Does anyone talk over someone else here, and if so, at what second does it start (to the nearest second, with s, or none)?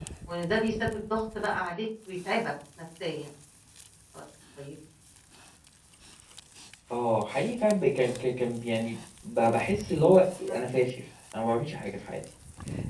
none